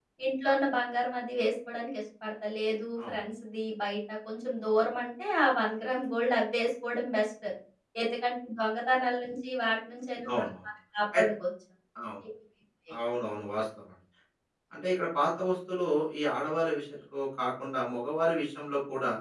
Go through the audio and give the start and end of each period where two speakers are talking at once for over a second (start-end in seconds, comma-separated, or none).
none